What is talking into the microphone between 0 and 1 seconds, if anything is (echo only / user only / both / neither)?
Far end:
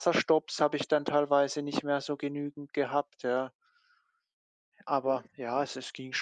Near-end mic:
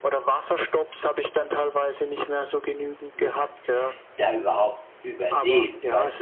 echo only